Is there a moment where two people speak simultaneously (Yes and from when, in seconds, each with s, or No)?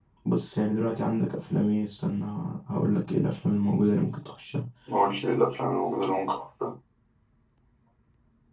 No